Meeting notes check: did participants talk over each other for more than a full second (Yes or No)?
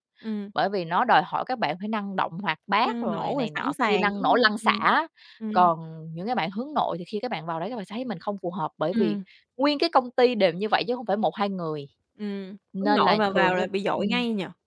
Yes